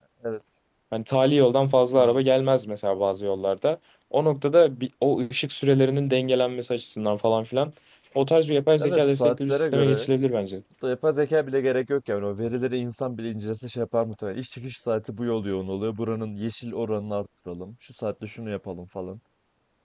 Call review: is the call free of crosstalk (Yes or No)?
No